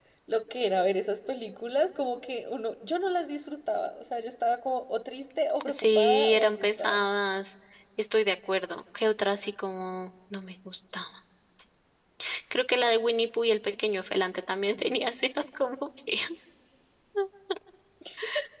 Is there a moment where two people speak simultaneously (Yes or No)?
Yes